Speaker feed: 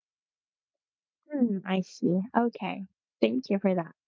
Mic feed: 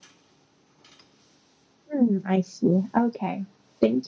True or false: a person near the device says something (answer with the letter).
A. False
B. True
A